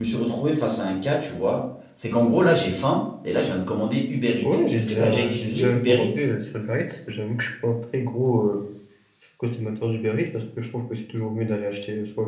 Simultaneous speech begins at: 4.4 s

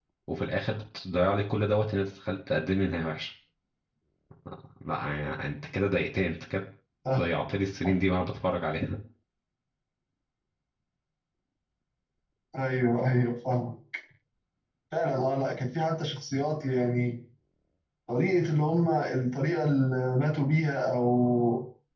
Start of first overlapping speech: none

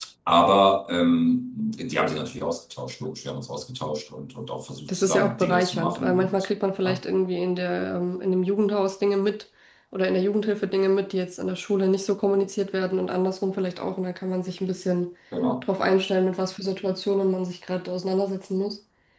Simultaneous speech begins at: 4.9 s

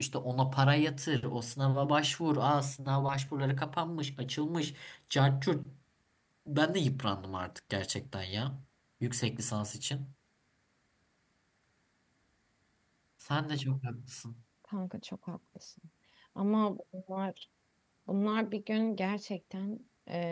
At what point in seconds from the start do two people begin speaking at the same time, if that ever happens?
none

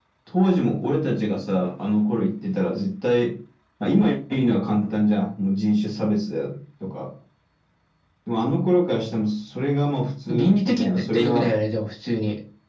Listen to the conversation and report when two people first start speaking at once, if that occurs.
10.3 s

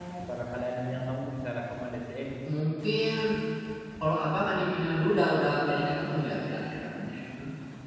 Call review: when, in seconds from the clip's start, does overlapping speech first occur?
none

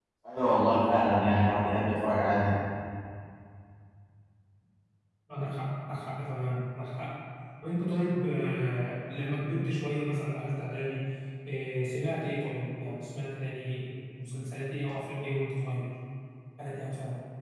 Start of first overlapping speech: none

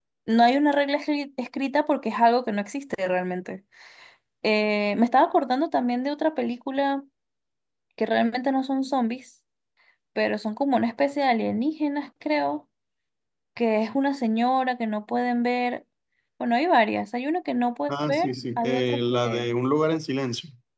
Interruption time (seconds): 17.9 s

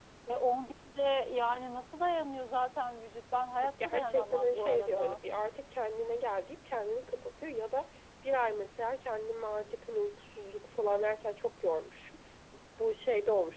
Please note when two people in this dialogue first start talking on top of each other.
3.6 s

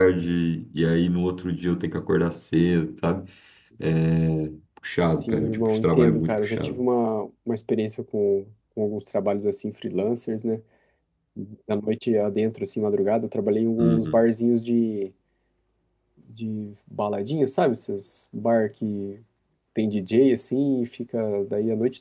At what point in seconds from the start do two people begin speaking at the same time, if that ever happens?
5.2 s

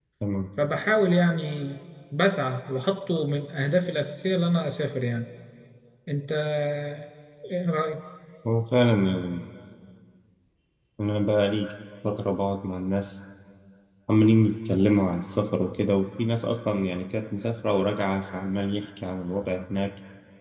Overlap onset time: none

